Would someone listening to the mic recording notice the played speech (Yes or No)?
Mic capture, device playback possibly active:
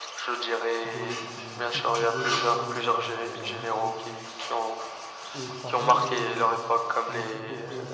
Yes